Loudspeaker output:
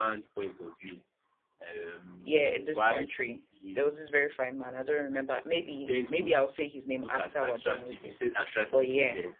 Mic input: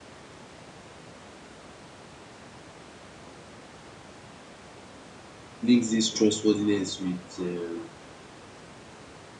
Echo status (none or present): none